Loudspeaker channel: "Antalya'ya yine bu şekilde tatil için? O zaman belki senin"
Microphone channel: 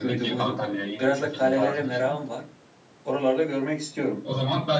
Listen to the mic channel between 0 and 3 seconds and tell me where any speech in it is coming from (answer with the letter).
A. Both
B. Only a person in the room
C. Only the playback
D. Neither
A